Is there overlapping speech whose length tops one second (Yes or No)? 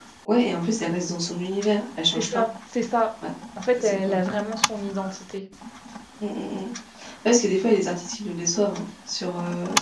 No